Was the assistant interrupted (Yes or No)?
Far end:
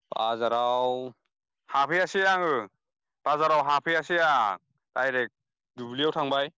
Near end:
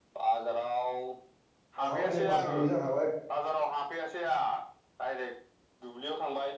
Yes